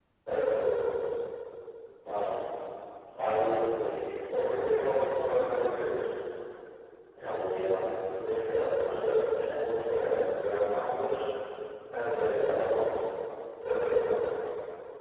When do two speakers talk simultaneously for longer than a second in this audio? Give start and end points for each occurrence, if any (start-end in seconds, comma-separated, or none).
none